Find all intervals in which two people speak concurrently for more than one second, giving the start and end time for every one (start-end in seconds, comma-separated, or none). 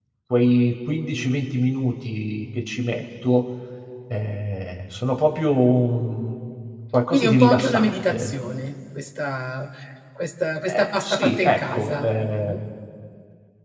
7.1-8.3, 10.7-12.0